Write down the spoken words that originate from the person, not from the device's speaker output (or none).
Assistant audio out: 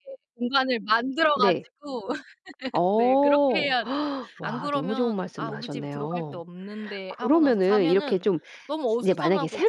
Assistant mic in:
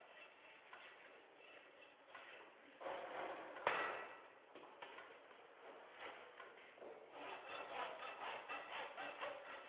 none